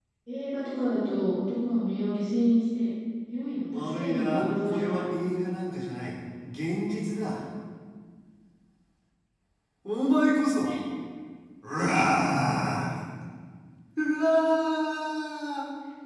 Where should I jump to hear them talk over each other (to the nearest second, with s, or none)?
4 s